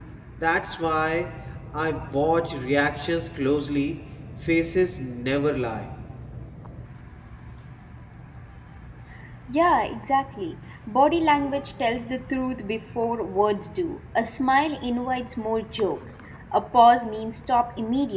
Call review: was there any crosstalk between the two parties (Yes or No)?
No